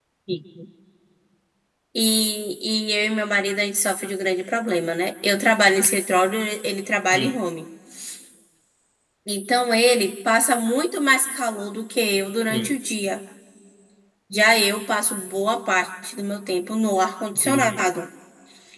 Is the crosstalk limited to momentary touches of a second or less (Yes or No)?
Yes